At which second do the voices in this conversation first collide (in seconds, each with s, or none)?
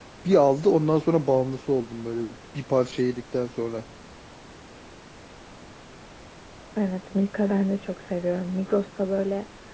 none